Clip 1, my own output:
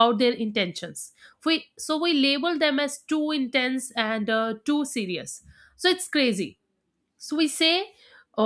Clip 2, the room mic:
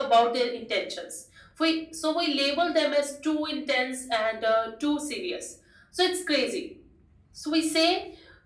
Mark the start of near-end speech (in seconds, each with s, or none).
none